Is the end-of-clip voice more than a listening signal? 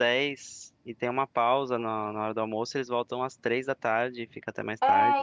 Yes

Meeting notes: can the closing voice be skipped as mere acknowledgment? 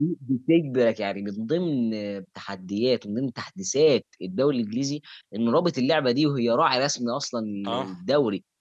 Yes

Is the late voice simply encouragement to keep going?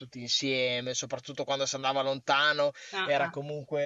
Yes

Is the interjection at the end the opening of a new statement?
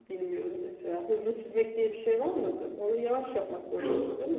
Yes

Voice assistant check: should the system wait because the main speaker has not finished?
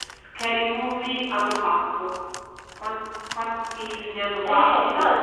No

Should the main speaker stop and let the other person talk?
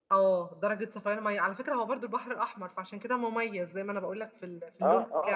Yes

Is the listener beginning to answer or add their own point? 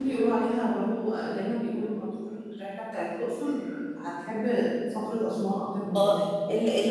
Yes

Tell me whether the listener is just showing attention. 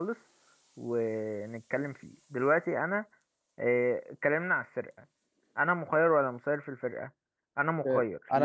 No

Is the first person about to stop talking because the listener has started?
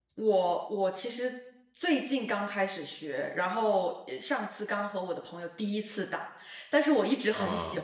No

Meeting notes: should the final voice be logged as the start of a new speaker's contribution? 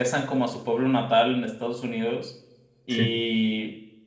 No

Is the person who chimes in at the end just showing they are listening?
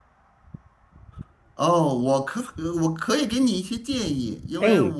Yes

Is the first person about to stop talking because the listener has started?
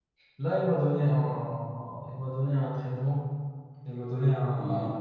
No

